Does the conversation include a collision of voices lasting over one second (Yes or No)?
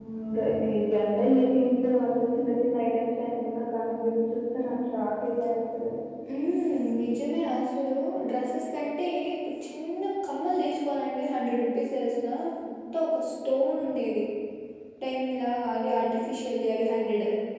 No